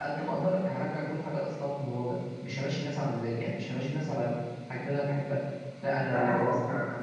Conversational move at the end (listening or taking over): taking over